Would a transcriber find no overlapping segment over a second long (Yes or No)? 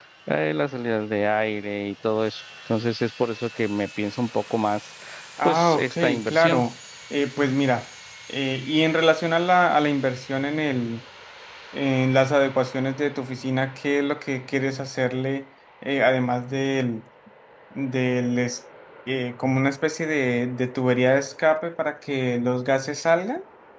No